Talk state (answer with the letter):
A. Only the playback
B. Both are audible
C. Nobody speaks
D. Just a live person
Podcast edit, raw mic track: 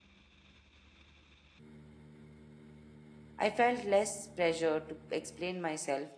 D